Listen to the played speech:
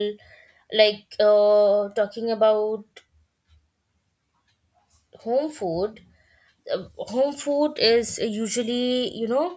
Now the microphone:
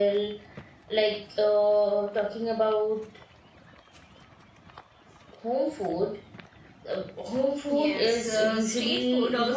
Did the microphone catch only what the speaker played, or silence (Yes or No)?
No